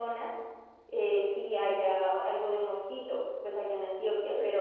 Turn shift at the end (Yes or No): No